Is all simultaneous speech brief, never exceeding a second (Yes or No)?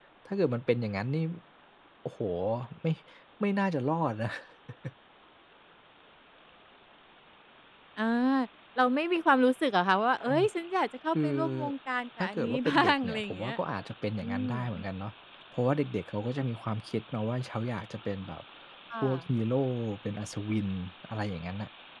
No